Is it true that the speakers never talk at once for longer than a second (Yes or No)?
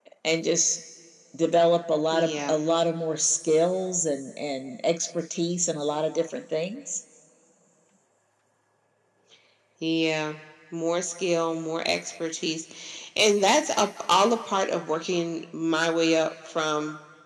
Yes